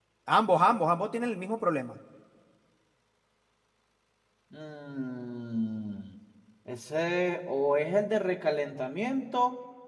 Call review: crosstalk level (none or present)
none